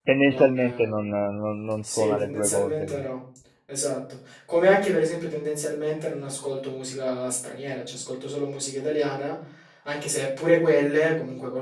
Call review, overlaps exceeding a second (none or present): present